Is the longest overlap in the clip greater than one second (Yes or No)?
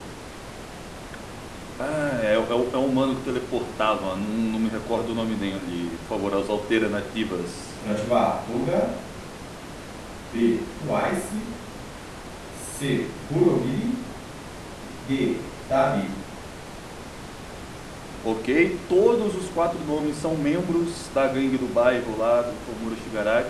No